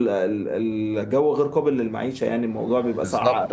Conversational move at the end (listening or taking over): taking over